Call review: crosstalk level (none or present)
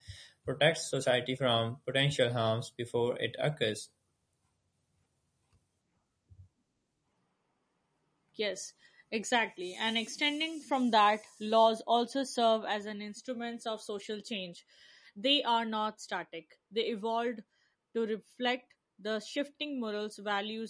none